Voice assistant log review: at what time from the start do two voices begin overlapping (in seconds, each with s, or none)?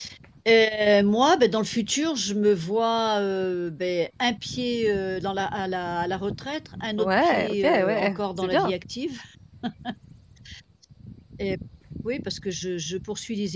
7.0 s